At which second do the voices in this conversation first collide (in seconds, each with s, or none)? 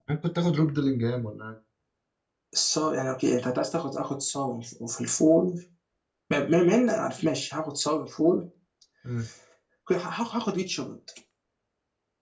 none